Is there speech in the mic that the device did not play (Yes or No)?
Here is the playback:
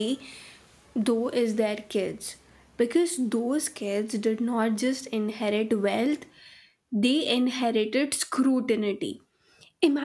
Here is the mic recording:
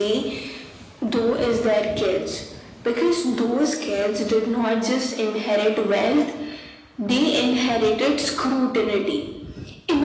No